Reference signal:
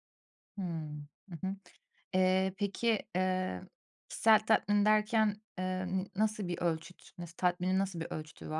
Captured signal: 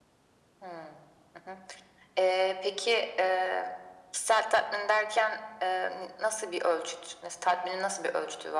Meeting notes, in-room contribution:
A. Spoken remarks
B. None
B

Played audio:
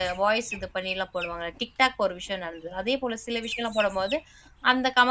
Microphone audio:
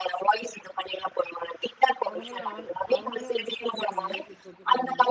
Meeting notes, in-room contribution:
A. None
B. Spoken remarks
B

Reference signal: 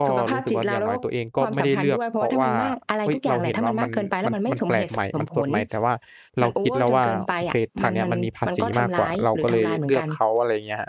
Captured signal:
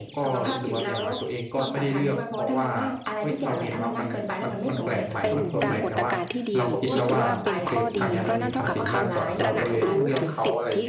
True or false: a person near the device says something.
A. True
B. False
A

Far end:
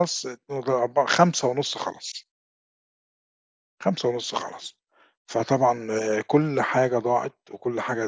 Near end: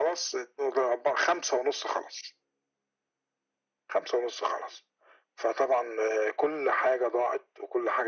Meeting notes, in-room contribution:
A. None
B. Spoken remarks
A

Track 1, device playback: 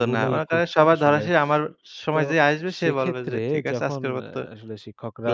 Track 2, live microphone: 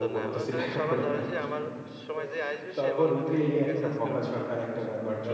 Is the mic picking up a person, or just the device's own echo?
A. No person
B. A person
B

